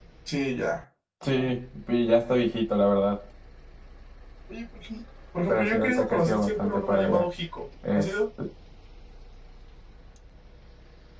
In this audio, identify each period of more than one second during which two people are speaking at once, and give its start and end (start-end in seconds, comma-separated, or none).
5.5-7.2